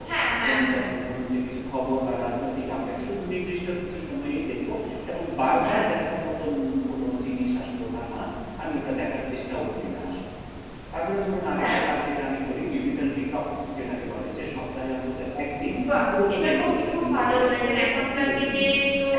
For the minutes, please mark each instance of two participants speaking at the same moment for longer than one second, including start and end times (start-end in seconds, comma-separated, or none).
16.3-18.6